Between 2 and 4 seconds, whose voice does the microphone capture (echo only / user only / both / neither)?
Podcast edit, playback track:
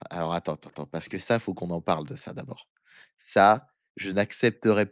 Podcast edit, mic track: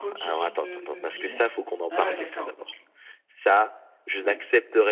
both